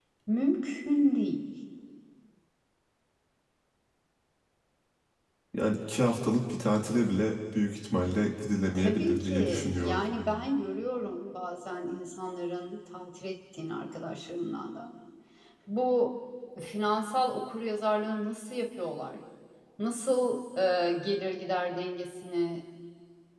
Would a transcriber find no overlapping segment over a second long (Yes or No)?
No